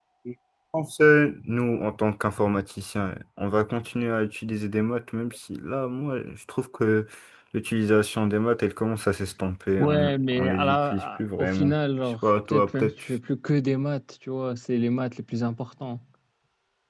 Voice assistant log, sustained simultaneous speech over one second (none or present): present